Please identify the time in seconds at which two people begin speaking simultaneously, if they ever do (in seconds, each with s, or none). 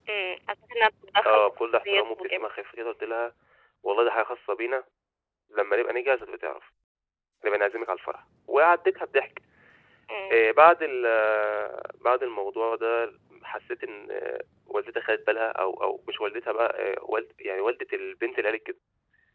1.2 s